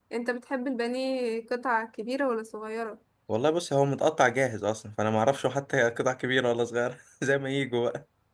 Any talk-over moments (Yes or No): No